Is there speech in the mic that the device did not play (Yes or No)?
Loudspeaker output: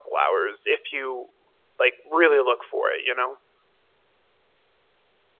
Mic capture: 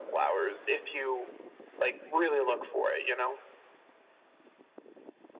No